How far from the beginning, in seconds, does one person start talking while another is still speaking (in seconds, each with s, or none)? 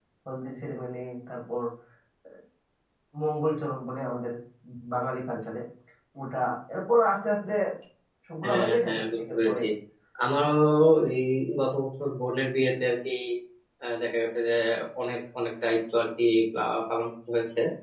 8.4 s